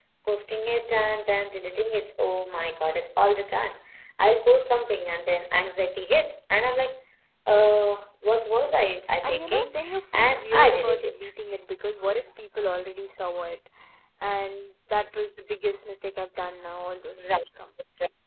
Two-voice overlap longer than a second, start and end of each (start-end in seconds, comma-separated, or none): 9.2-11.2